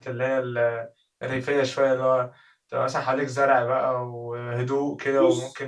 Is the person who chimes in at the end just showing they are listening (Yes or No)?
Yes